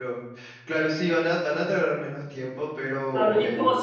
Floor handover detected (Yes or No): Yes